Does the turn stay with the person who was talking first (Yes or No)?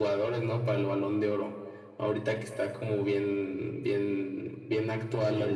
Yes